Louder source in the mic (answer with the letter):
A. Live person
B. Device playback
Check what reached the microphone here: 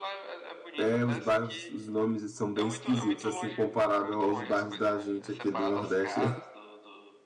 A